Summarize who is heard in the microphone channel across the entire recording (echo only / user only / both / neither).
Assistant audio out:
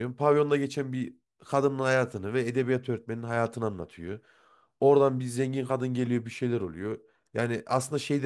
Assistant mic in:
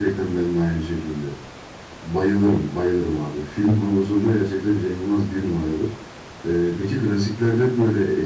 user only